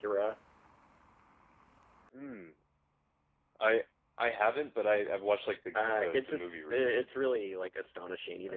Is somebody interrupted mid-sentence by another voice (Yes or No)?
Yes